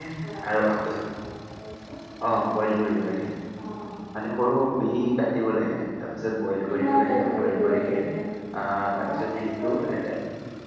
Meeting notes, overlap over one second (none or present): present